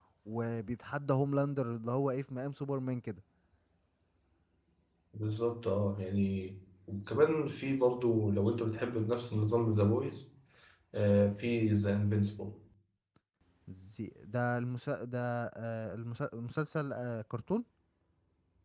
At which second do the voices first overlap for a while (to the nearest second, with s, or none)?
none